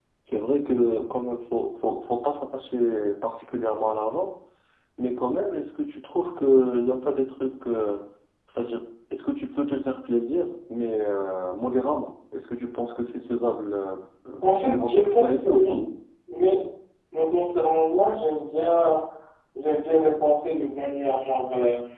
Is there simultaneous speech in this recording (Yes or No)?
Yes